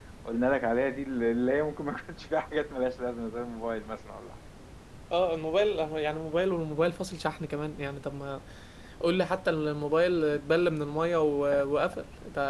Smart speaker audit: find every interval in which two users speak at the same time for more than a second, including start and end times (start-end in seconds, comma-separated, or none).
none